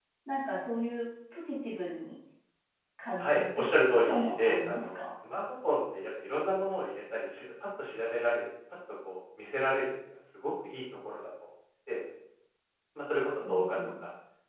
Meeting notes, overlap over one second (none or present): present